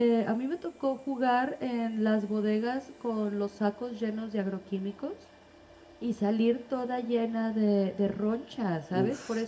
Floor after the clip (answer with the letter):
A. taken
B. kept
B